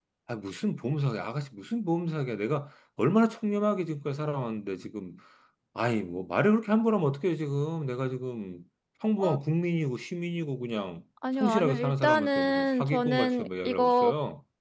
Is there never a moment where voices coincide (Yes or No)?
No